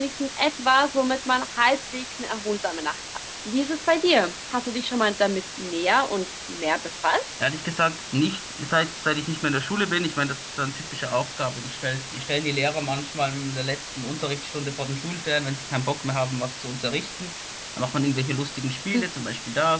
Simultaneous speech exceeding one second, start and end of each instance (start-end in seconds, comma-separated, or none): none